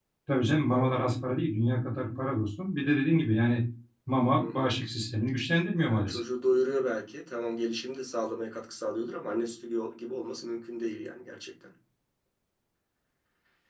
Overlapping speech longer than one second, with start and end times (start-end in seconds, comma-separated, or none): none